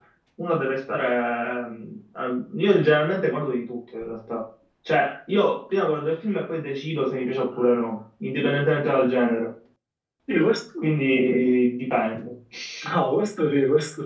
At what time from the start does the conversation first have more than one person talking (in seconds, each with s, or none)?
none